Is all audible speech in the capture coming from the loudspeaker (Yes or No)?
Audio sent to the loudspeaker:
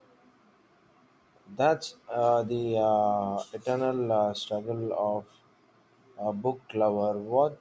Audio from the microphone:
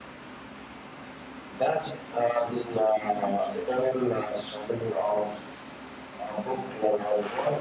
Yes